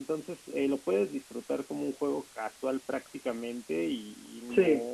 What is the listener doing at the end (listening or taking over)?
listening